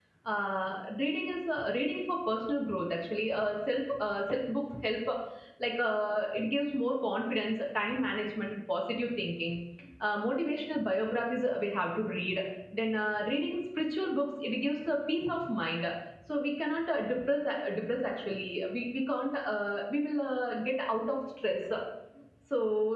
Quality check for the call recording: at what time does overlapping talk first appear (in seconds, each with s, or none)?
none